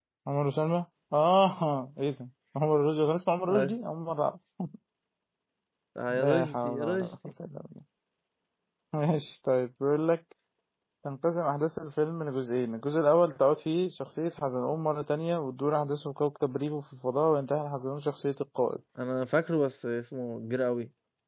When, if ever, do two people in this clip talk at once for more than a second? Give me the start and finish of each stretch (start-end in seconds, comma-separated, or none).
6.1-7.3